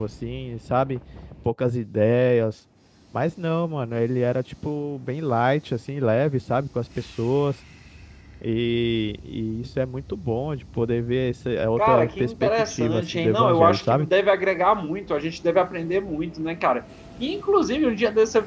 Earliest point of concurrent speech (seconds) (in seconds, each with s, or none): 11.8 s